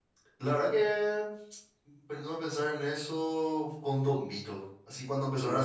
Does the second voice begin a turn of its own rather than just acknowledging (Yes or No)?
No